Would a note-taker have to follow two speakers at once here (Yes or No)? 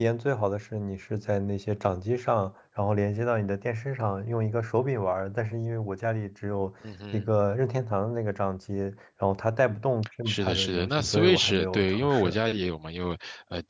Yes